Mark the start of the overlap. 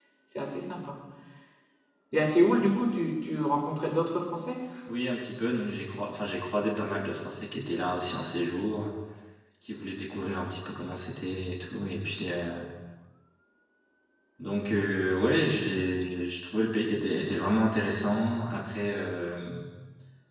none

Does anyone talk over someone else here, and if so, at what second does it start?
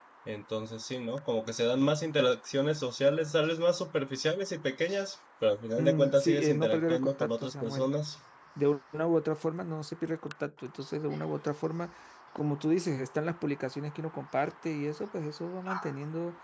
5.8 s

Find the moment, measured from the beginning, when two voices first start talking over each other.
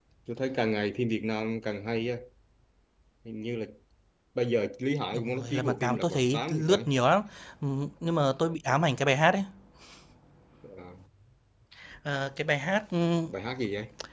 5.1 s

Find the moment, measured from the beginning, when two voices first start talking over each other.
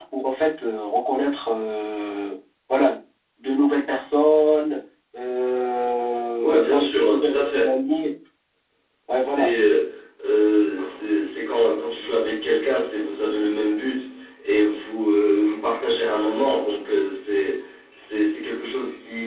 6.4 s

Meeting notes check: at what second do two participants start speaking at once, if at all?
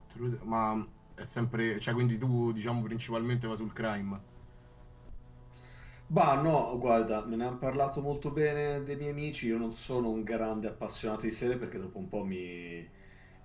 none

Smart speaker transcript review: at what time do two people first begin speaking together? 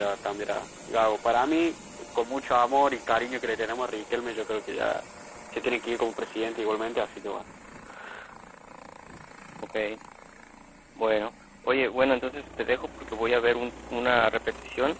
none

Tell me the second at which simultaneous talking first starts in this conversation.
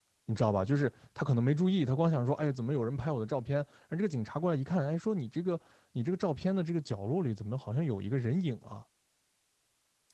none

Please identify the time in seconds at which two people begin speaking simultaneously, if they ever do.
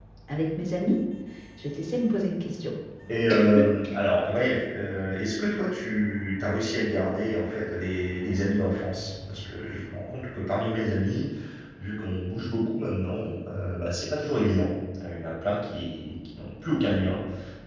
none

